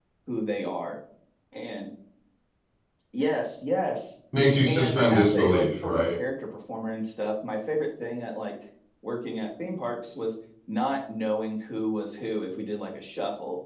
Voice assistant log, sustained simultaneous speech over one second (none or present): present